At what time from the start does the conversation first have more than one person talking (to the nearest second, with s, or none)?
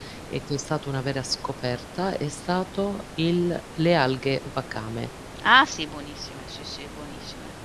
none